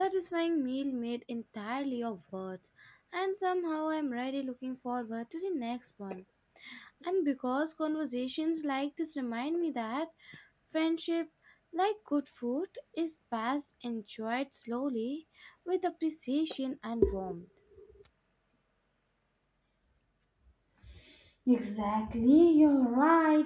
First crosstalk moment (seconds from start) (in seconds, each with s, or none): none